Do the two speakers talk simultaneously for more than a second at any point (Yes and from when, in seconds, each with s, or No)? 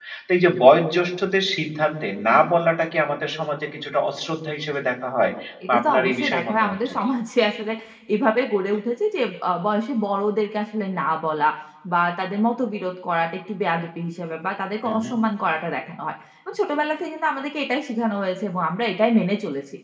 Yes, from 5.7 s